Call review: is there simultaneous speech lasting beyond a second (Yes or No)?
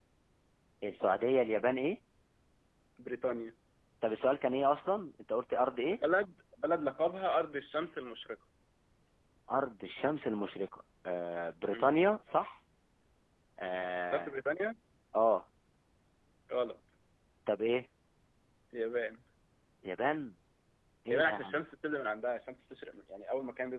No